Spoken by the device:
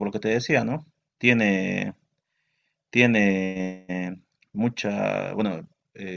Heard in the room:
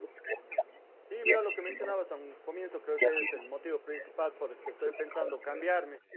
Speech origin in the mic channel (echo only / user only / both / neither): both